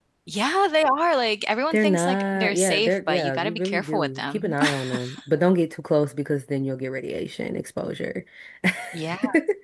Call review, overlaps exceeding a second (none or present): present